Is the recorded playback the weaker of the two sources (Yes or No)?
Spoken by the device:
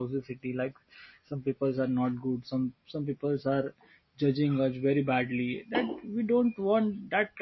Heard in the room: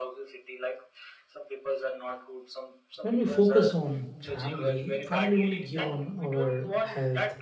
Yes